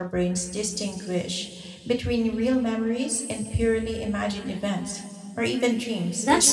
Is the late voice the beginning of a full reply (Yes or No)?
Yes